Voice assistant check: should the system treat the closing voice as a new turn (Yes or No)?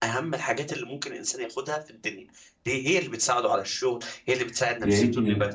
Yes